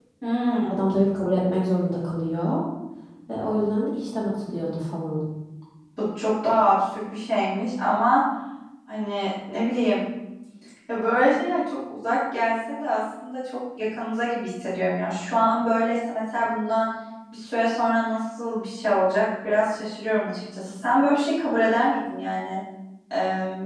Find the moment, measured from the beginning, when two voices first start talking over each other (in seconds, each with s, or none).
none